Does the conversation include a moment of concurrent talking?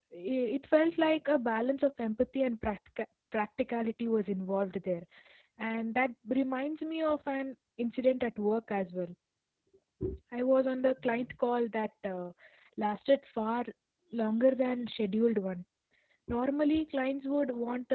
No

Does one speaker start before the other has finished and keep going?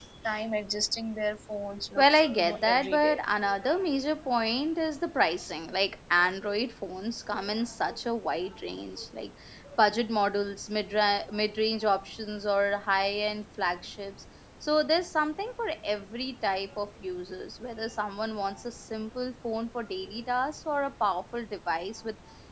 Yes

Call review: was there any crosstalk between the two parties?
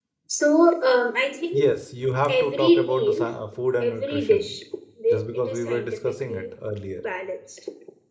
Yes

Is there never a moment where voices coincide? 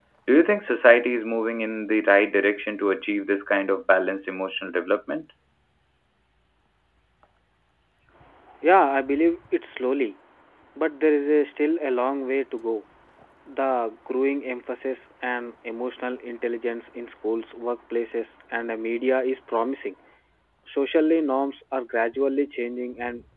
Yes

